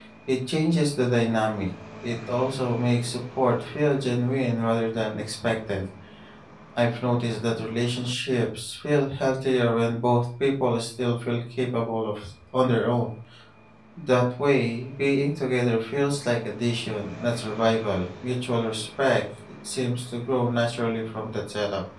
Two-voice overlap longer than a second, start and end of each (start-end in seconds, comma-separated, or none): none